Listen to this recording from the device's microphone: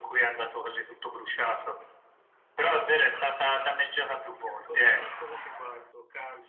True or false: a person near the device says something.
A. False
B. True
B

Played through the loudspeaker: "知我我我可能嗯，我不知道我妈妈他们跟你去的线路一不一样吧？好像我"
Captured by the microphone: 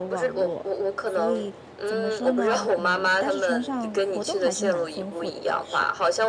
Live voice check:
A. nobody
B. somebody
B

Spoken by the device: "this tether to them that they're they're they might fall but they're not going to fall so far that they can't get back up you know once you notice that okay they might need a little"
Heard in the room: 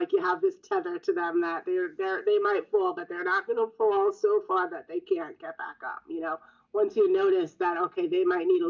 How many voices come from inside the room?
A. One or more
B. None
B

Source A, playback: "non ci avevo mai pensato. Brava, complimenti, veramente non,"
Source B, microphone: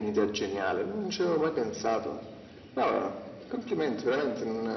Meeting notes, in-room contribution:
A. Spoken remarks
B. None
B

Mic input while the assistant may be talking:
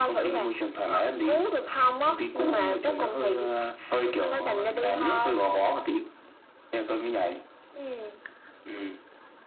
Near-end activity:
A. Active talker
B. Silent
B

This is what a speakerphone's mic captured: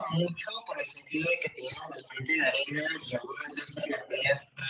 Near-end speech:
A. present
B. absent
B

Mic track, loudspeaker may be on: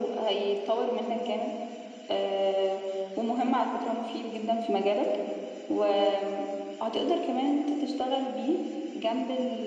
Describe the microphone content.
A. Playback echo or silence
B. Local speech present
A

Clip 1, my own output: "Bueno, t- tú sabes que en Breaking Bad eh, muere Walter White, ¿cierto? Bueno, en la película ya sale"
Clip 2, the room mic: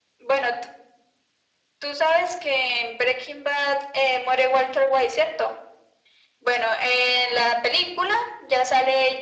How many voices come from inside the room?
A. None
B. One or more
A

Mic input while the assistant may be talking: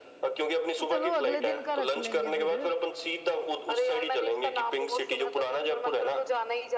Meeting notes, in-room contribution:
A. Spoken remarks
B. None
A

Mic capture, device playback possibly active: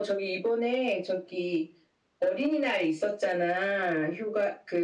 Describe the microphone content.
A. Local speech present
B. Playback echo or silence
B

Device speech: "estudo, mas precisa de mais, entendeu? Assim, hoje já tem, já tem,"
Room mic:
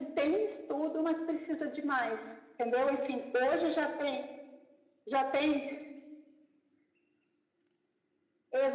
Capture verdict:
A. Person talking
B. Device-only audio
B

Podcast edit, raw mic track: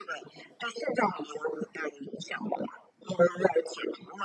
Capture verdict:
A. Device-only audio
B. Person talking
A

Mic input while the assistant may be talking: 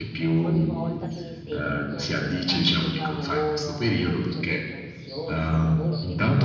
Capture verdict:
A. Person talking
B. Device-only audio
A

